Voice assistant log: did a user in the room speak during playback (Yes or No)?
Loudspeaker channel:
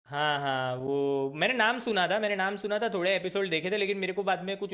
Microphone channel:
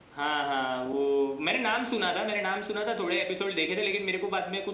No